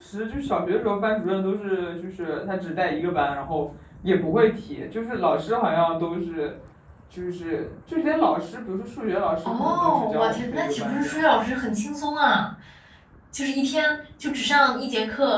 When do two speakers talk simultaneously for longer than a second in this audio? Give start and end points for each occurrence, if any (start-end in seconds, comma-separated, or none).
9.4-11.2